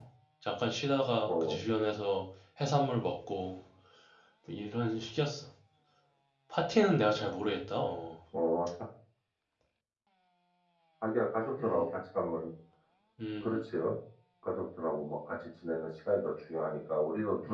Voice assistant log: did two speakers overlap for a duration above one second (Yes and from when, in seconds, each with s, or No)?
No